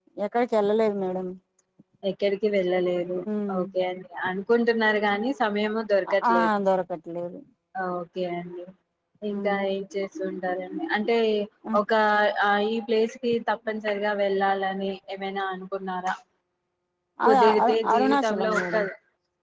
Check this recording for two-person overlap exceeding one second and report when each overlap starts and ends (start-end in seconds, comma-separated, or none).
17.2-18.8